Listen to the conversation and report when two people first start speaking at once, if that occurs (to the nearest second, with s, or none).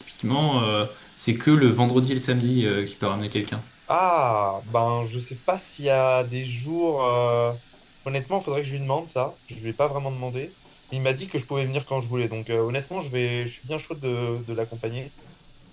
none